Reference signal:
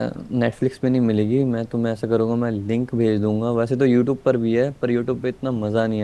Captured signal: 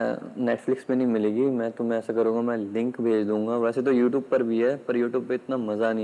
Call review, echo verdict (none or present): present